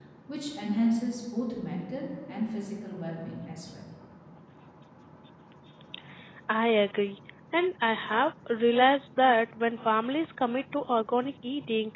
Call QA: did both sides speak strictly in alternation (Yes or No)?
Yes